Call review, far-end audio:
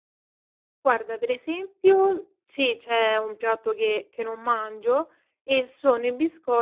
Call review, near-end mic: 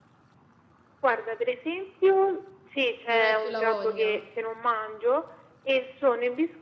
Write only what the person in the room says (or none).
Non hai più la voglia.